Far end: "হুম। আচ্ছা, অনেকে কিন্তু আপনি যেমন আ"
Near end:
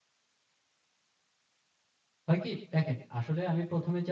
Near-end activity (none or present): present